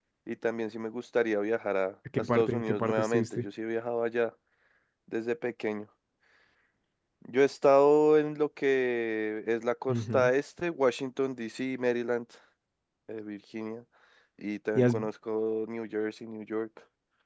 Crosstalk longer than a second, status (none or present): present